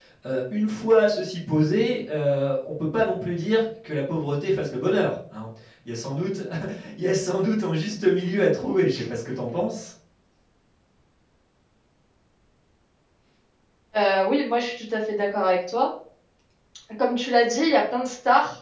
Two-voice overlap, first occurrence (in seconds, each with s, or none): none